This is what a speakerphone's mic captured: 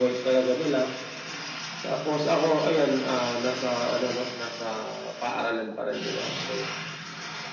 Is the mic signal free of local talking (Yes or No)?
Yes